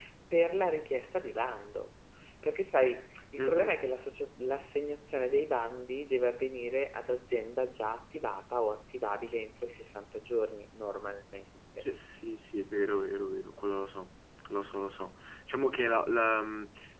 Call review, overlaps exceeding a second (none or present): none